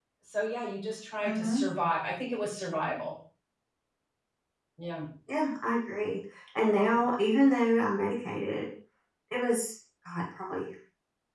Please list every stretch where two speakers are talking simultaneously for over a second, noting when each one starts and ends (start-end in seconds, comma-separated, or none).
none